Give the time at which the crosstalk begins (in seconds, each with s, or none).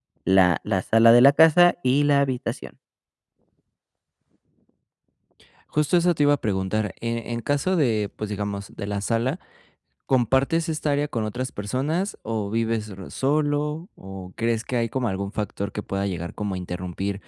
none